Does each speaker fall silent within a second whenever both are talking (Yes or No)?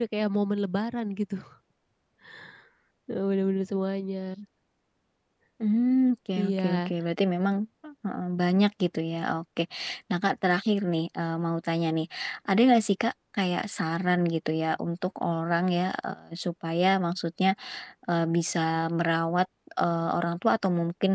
Yes